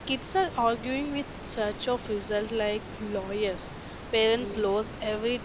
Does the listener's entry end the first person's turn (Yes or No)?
No